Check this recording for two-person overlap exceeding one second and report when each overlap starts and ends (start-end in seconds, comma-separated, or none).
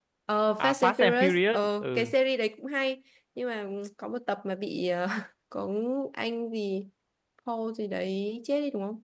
0.6-2.1